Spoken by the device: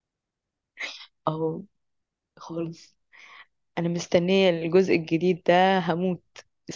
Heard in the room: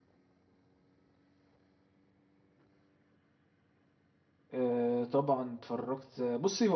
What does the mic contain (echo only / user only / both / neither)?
user only